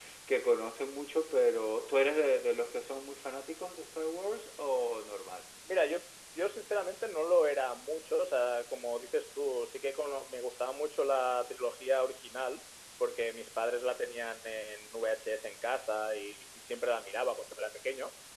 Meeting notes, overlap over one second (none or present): none